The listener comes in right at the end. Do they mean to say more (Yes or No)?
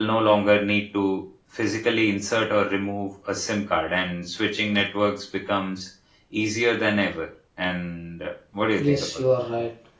Yes